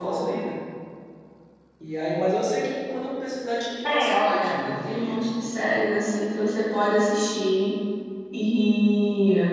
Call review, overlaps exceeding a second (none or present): present